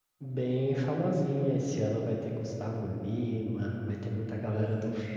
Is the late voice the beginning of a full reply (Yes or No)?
No